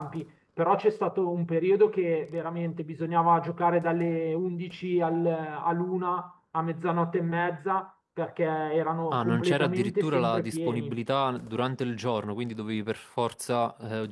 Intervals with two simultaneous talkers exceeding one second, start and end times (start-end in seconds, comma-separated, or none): 9.1-11.0